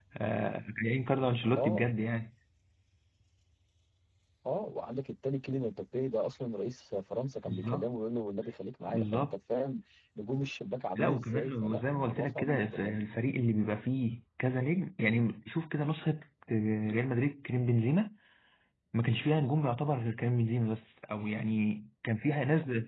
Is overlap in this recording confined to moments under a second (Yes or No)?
No